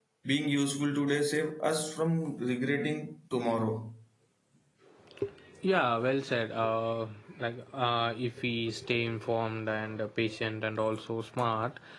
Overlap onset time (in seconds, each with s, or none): none